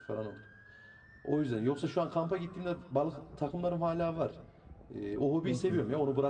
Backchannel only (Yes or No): Yes